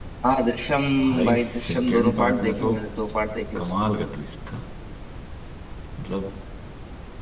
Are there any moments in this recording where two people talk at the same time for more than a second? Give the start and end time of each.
1.2-2.7

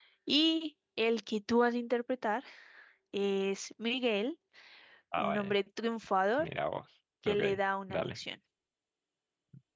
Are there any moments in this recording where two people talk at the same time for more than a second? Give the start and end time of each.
none

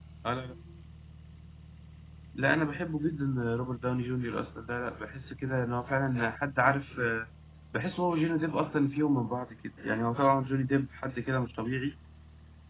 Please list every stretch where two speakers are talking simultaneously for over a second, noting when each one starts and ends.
none

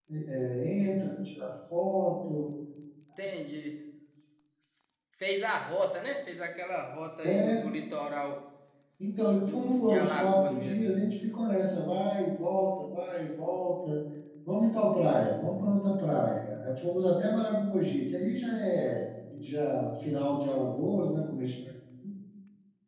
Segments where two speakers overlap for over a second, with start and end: 9.4-10.8

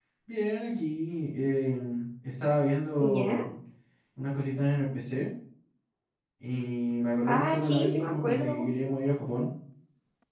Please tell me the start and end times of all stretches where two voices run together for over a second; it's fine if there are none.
7.3-8.7

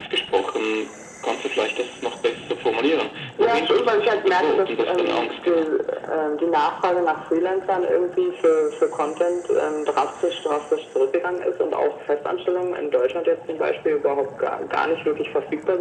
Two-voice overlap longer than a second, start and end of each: 3.4-5.7

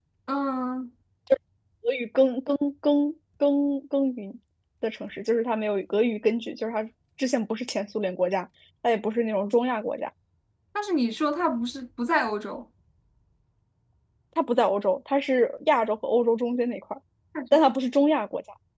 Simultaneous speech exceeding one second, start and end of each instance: none

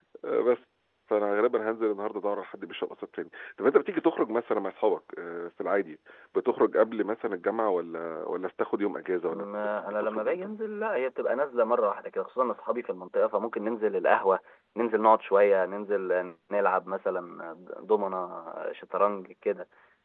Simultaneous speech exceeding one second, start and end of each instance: 9.3-10.5

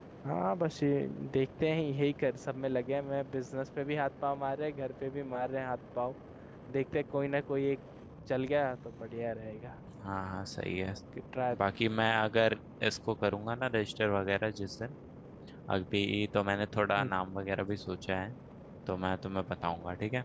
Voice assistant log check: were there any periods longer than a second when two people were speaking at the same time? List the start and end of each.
none

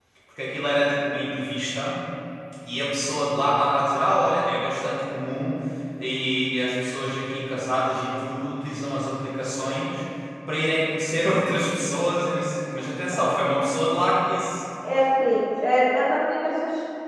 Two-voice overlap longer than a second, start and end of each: none

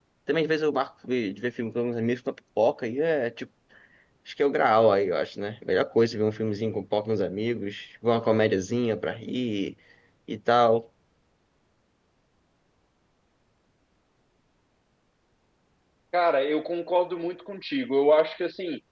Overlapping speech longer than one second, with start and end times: none

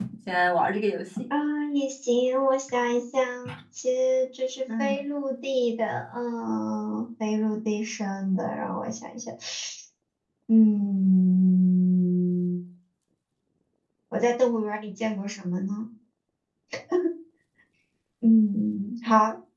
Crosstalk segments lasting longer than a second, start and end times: none

